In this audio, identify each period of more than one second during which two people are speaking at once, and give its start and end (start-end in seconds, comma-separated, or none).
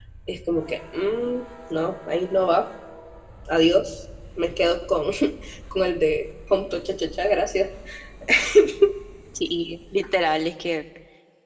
none